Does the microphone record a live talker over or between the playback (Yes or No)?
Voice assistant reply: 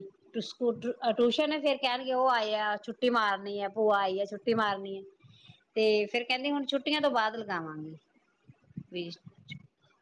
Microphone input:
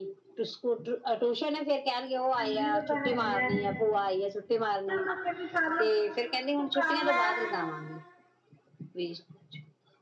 Yes